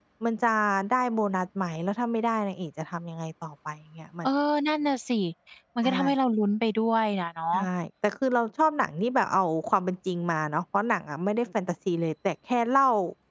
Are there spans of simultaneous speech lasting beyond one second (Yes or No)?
No